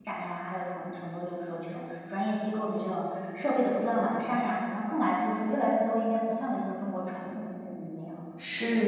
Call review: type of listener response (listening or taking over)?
taking over